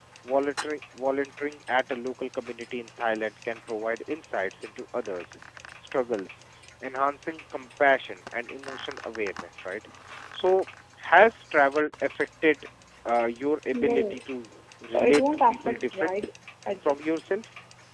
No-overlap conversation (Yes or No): No